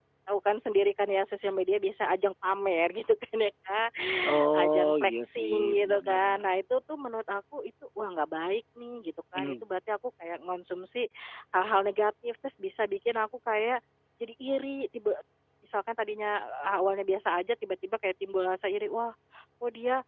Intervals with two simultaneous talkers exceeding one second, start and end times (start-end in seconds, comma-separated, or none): 4.5-6.4